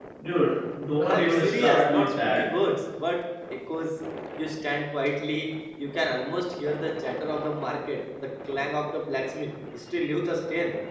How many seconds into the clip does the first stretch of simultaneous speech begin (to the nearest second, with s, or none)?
1 s